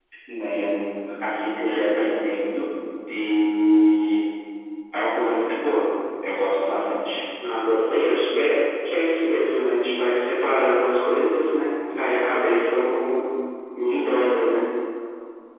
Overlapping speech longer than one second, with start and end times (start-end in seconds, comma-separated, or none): none